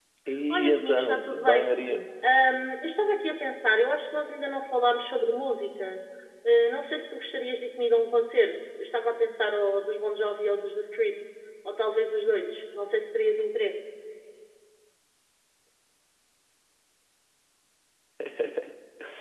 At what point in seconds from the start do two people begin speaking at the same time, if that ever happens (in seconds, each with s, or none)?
0.5 s